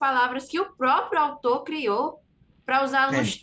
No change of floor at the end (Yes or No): Yes